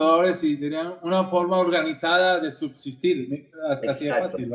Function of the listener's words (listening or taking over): taking over